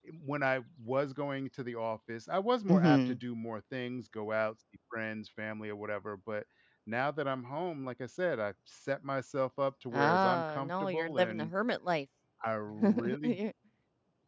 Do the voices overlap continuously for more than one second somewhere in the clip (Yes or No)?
Yes